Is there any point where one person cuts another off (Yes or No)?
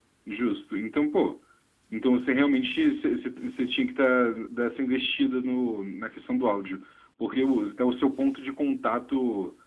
No